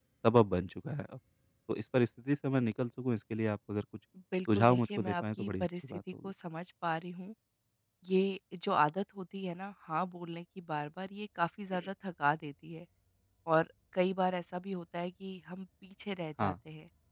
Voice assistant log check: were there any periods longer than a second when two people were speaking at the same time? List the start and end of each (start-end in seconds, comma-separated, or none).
4.5-6.3